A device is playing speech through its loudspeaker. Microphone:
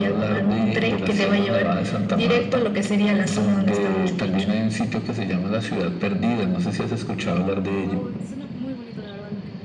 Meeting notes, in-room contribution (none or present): present